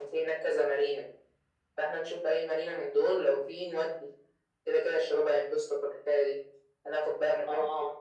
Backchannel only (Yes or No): Yes